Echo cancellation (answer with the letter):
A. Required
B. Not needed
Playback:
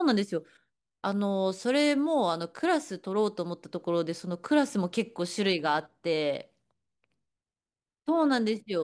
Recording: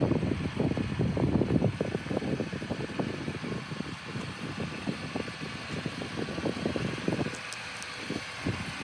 B